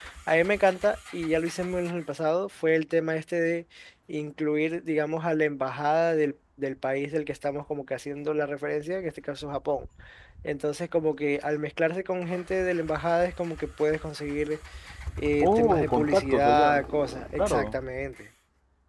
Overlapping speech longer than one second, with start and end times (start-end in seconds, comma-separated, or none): 15.4-16.8